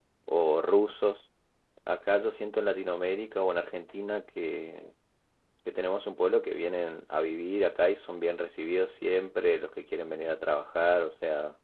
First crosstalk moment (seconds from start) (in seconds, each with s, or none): none